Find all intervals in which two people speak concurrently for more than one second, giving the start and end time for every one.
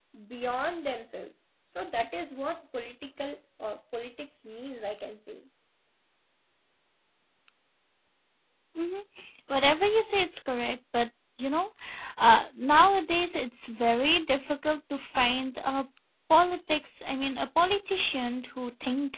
none

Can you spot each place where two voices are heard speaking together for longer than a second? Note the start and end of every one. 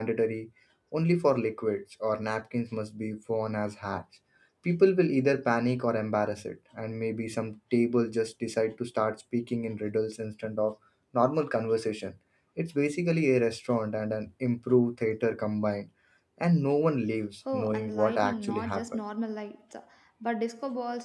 17.5-19.0

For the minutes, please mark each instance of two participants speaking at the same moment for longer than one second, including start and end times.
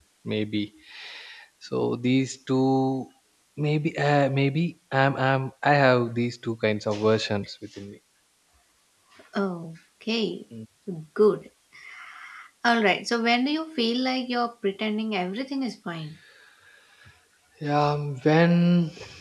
none

